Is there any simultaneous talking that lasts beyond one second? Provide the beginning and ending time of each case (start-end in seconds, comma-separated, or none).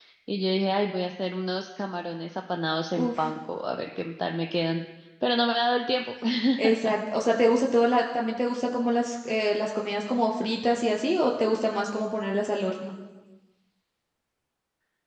none